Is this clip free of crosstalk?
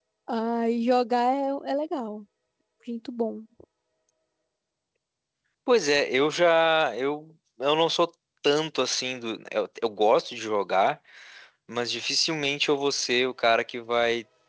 Yes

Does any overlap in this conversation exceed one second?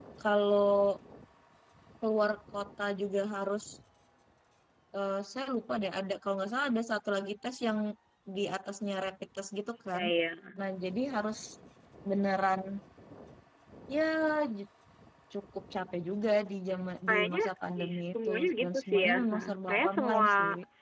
Yes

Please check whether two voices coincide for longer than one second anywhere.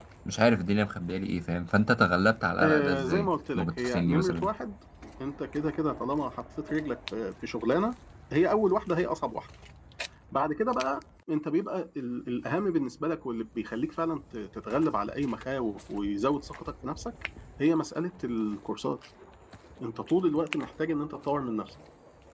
Yes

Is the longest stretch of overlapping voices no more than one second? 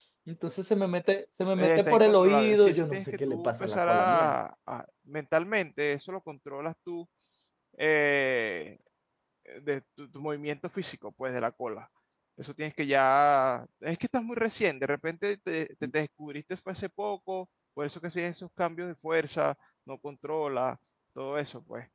No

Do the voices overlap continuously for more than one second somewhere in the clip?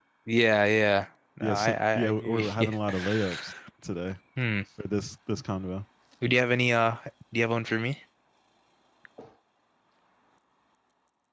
Yes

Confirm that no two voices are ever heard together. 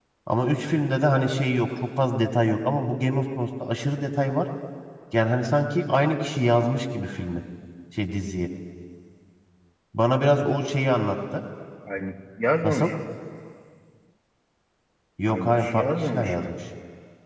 No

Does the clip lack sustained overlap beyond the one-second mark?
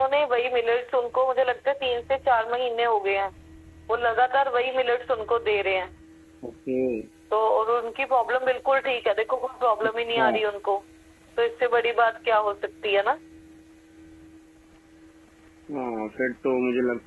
Yes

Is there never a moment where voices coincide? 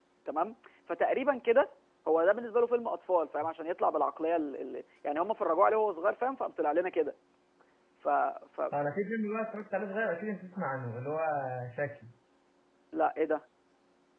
Yes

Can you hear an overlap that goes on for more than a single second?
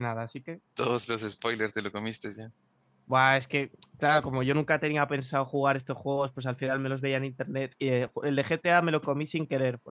No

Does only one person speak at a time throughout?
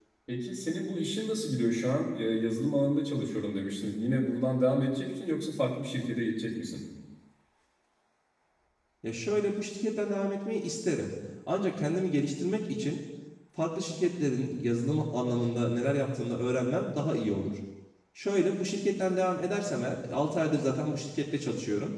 Yes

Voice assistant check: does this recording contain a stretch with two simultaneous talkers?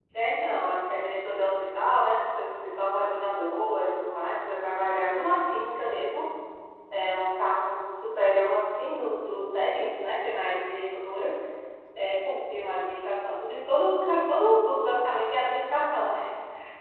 No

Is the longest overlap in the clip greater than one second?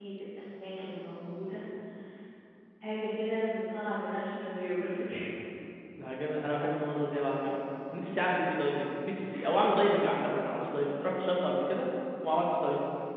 No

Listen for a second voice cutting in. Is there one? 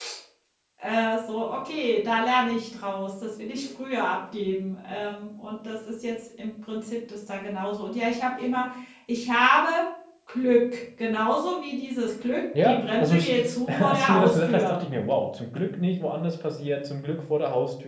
Yes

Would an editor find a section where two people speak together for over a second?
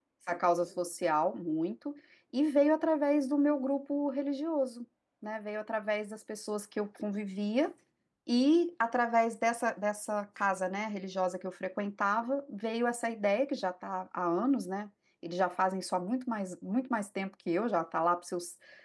No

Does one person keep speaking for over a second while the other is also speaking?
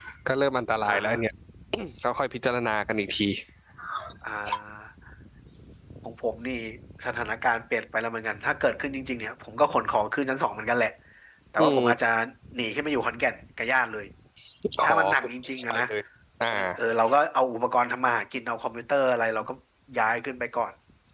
No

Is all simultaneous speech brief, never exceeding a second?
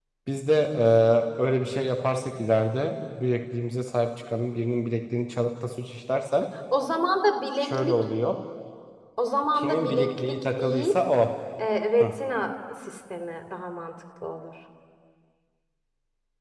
No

